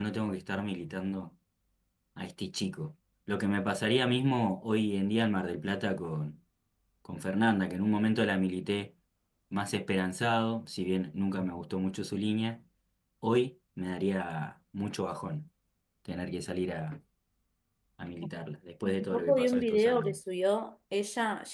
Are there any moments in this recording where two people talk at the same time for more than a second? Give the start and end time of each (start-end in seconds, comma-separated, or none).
18.9-20.2